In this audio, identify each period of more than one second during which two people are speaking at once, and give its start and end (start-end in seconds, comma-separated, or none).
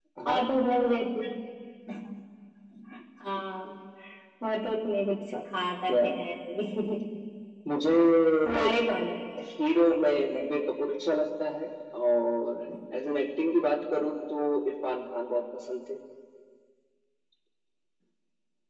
none